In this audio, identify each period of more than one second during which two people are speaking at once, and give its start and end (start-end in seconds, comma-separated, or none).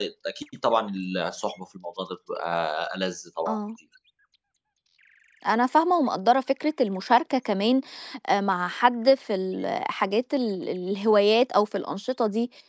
none